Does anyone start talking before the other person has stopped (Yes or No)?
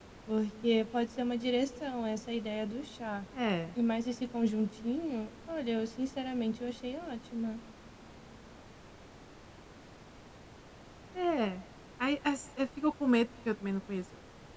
No